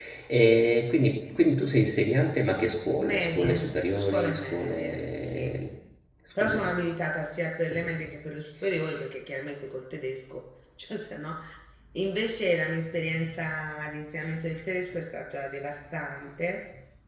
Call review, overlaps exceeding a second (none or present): present